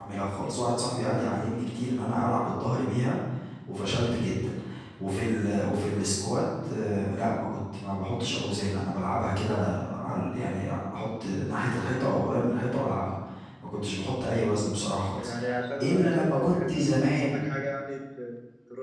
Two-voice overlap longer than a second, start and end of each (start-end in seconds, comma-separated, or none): 15.8-17.4